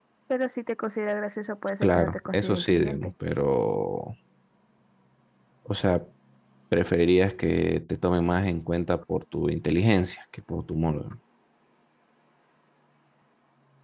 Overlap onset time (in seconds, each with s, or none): 1.8 s